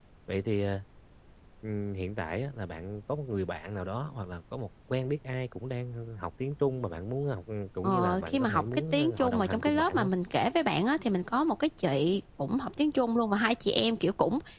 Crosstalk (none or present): present